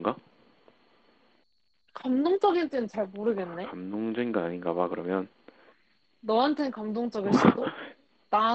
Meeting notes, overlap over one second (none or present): none